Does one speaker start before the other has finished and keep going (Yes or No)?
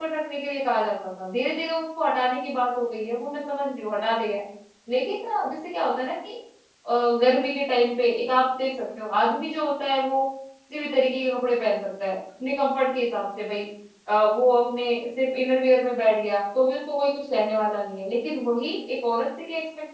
No